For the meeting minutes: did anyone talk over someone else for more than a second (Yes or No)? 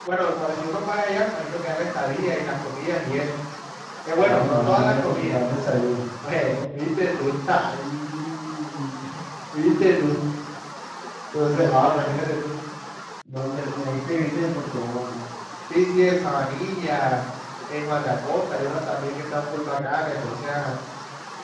Yes